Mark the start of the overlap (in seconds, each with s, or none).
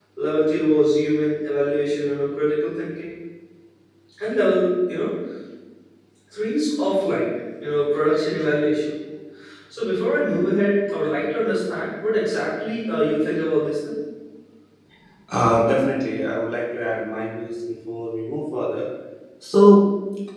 none